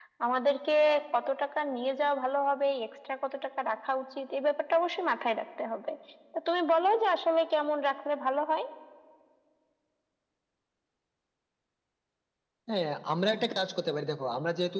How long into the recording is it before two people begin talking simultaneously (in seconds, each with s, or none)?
none